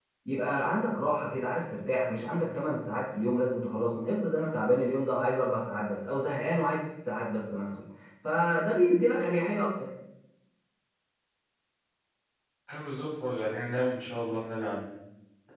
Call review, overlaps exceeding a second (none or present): none